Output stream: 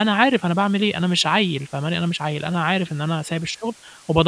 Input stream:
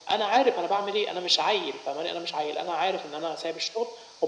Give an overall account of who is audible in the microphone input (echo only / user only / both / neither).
echo only